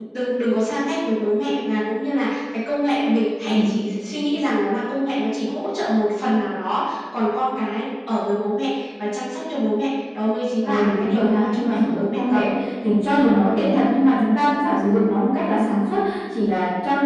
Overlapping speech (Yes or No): Yes